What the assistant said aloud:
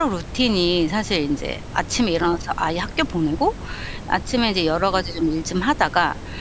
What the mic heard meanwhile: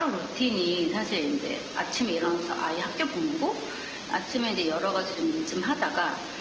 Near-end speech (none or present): none